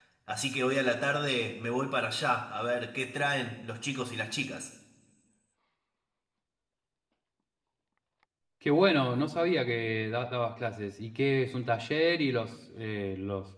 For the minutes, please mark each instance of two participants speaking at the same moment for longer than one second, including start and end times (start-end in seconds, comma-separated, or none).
none